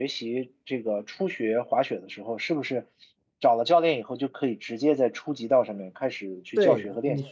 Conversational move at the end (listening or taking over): taking over